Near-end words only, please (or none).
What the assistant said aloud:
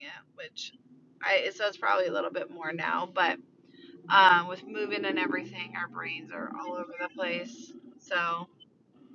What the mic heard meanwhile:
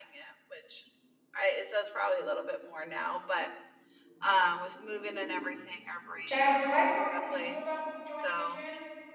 Jazz, was I talking to you about joining a gym?